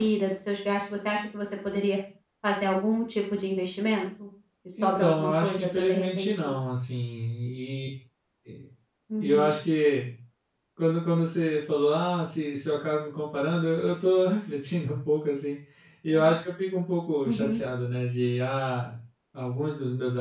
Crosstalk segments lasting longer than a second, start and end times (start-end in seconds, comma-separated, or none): 4.8-6.5